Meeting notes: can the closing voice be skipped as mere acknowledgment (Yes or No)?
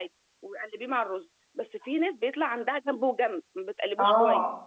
No